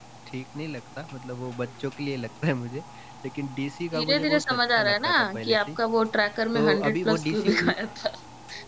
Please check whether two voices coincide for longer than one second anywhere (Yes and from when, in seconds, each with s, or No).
Yes, from 3.9 s